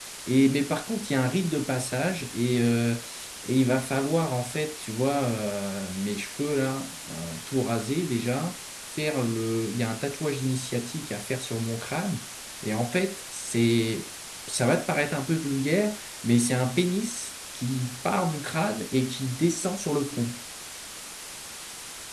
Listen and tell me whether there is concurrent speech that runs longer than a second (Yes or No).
No